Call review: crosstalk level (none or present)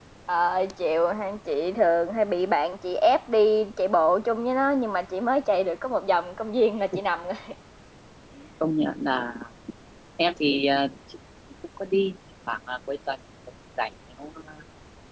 none